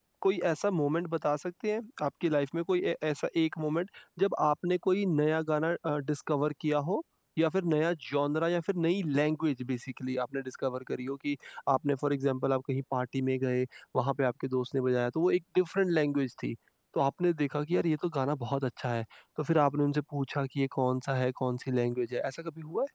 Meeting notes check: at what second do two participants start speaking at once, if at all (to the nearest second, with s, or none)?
none